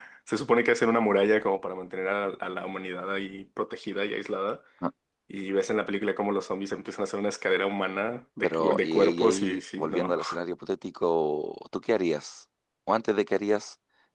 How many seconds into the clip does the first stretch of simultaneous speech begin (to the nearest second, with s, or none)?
8 s